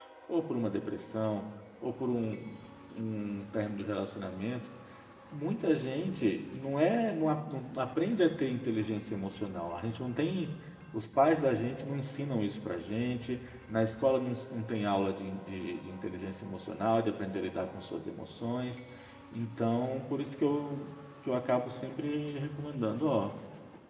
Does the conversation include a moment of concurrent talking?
No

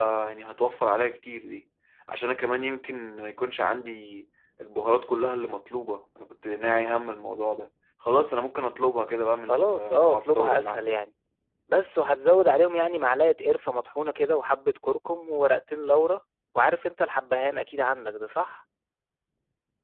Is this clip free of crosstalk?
No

